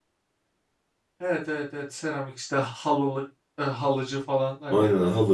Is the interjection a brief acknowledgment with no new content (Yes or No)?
No